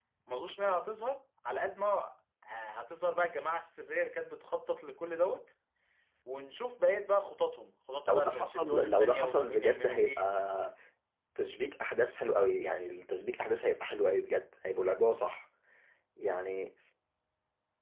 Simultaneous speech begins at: 8 s

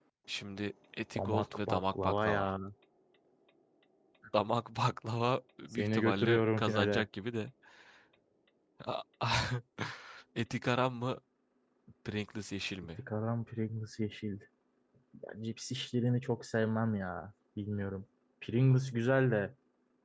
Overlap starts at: 1 s

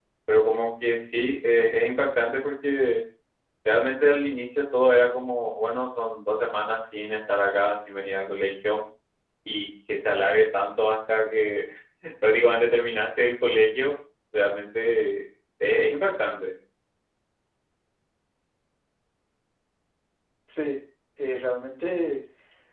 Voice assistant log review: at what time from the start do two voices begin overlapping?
none

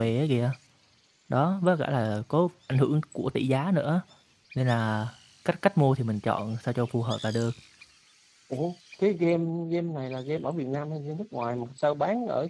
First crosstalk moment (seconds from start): none

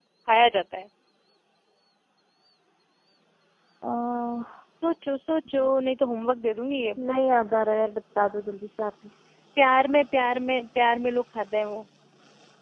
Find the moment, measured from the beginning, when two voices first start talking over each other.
none

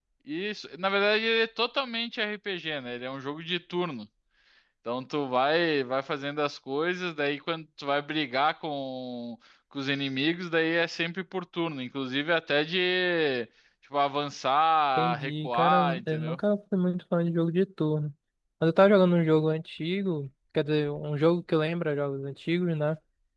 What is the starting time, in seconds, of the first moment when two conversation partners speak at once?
15 s

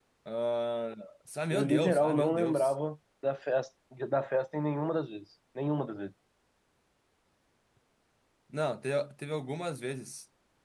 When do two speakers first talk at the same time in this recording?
2 s

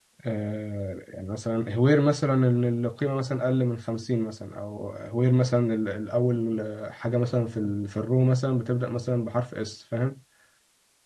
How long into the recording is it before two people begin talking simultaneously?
none

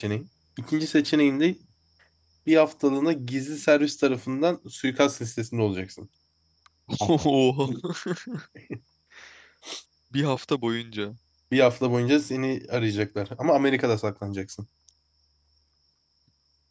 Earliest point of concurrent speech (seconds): none

